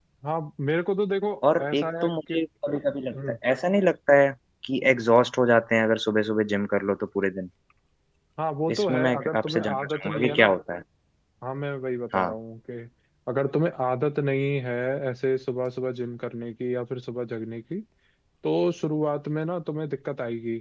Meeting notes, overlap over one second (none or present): present